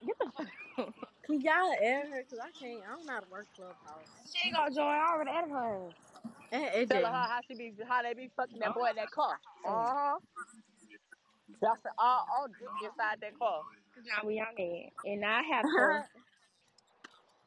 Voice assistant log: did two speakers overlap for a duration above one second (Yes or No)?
No